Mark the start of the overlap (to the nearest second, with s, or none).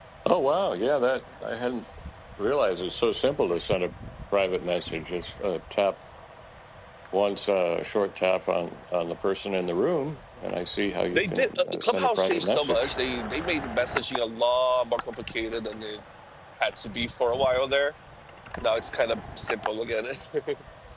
11 s